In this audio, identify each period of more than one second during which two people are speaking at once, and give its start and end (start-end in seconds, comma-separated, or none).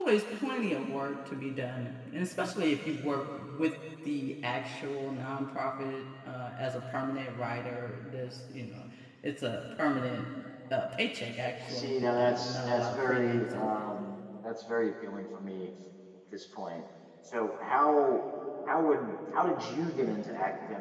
11.6-13.7